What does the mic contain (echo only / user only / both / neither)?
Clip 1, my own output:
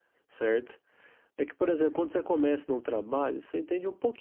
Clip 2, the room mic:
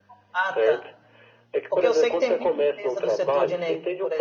both